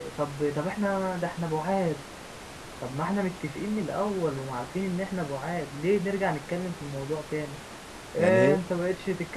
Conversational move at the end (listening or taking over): listening